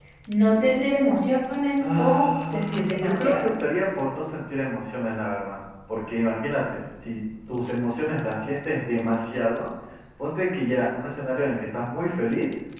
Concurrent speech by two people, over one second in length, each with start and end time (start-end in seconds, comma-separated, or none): 2.0-3.5